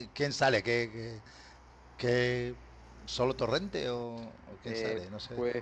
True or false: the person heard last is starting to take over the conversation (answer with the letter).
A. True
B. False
A